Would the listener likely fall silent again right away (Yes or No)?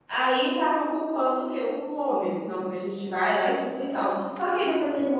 Yes